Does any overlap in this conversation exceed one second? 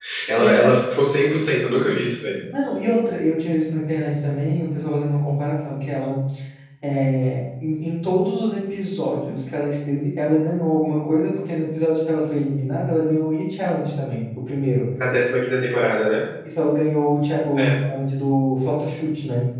No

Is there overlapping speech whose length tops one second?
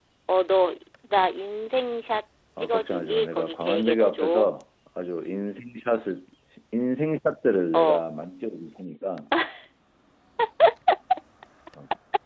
Yes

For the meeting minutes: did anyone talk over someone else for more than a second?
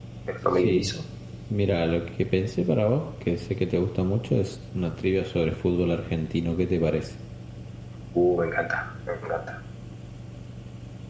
No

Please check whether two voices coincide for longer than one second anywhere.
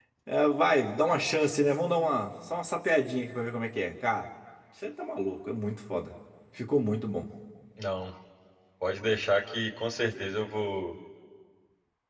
No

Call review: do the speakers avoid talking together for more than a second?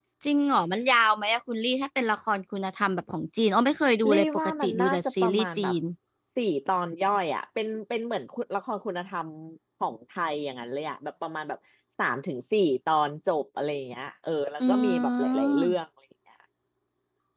No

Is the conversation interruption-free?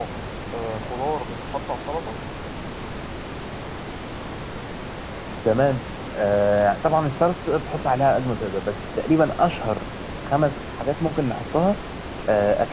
Yes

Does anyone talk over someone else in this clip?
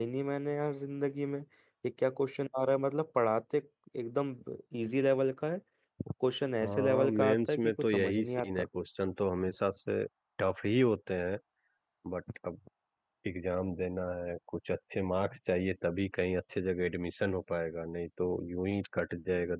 Yes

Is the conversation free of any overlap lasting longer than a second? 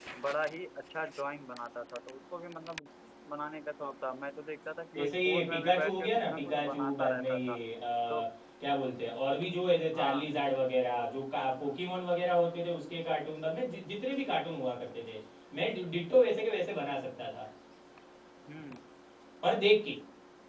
No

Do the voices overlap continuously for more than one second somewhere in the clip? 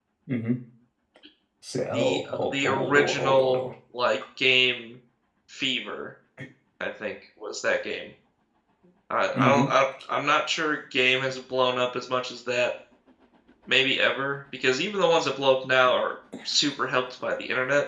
Yes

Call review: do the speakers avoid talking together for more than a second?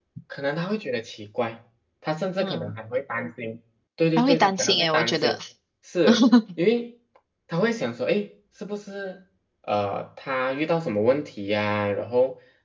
No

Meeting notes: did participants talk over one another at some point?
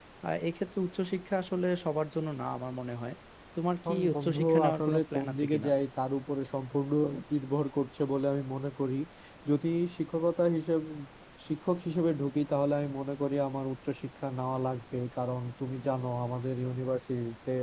Yes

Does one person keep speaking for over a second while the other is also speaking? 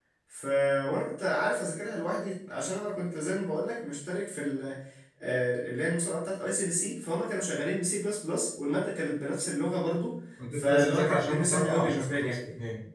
Yes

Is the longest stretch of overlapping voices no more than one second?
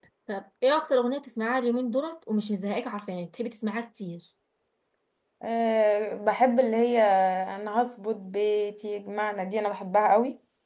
Yes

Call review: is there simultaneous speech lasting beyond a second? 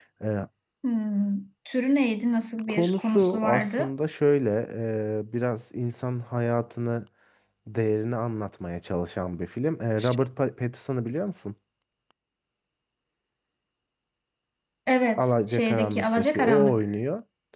Yes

